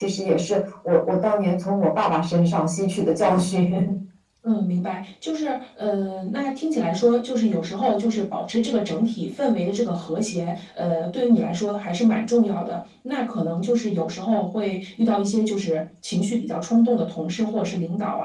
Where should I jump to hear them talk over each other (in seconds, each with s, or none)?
none